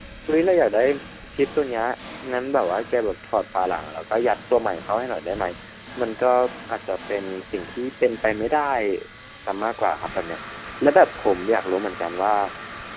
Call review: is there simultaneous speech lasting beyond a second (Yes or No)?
No